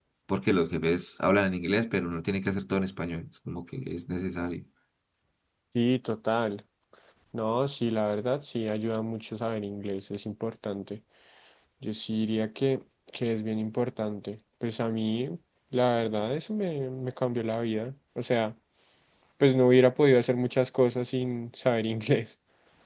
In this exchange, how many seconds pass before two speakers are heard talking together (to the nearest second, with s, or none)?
none